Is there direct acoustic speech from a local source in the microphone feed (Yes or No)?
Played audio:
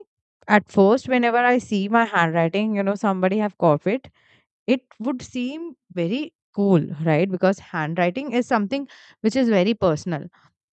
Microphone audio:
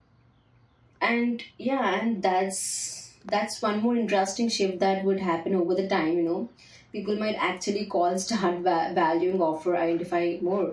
Yes